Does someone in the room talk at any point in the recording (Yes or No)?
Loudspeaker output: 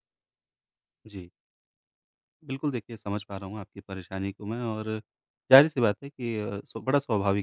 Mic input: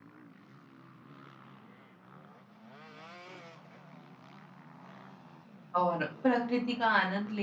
Yes